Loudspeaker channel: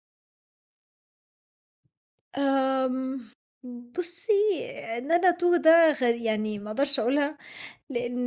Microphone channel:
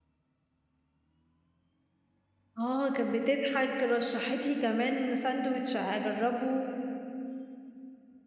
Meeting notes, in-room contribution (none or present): present